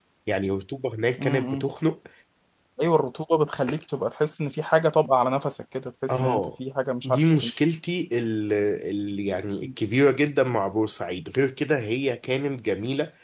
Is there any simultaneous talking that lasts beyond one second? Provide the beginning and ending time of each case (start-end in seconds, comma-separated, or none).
none